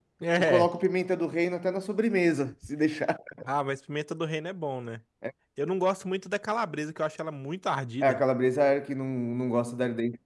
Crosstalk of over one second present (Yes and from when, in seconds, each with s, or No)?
No